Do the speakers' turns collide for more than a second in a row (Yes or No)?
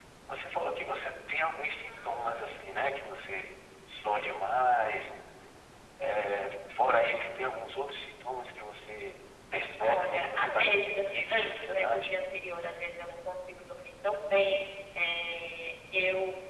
Yes